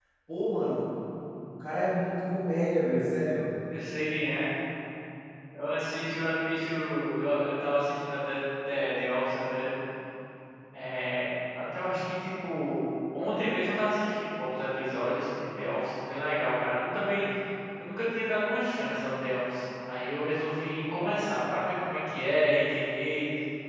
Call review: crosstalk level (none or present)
none